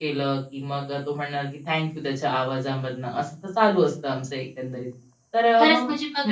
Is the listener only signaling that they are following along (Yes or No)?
No